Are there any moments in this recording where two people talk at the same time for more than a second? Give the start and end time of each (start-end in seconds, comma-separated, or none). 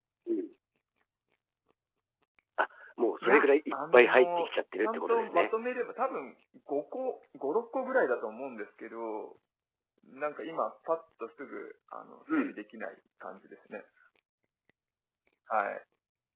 3.2-5.5